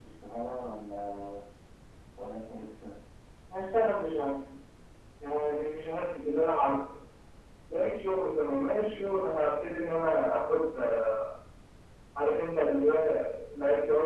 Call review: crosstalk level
none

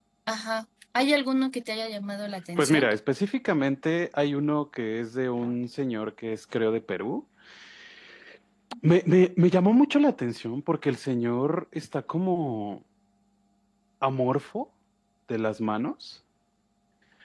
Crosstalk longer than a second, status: none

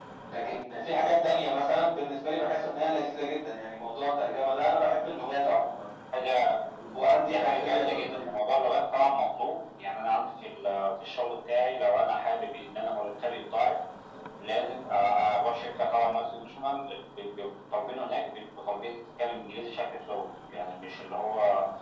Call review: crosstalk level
present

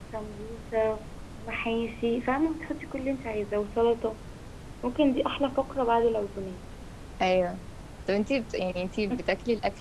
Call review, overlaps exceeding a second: none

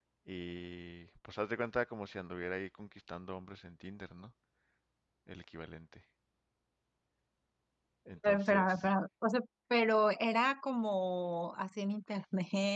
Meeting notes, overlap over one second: none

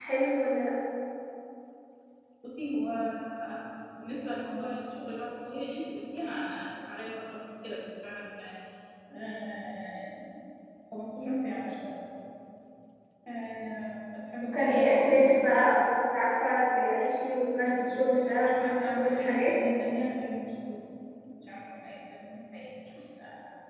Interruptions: present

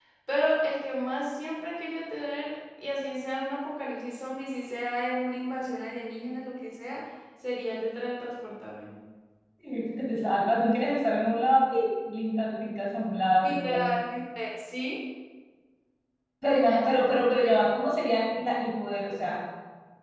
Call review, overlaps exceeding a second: none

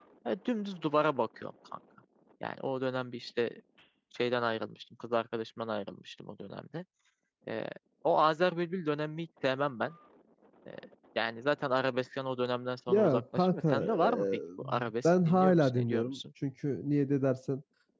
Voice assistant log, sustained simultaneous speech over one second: present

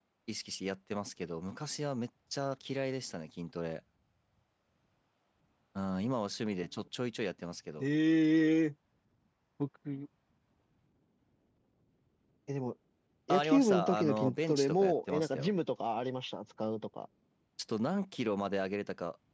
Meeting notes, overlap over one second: present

